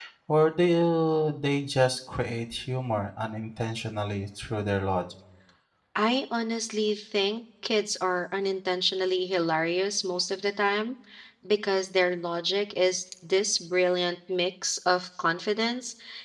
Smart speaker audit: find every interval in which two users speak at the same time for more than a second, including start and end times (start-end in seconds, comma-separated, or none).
none